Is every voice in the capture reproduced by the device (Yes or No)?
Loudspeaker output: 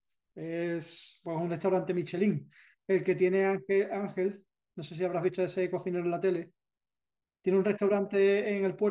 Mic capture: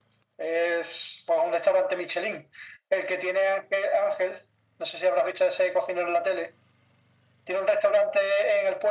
Yes